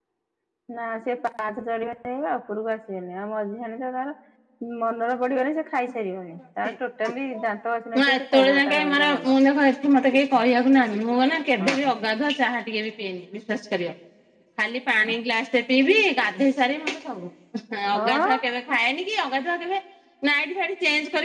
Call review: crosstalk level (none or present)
present